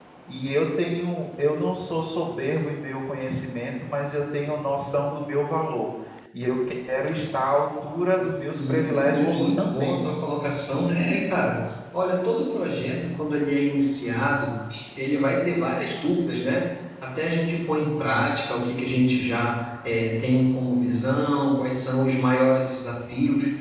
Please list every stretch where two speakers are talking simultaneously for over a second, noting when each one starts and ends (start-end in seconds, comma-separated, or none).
8.5-10.0